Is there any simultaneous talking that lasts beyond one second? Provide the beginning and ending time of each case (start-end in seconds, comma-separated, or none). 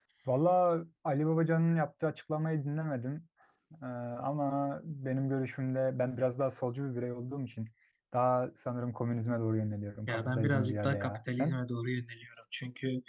10.1-11.6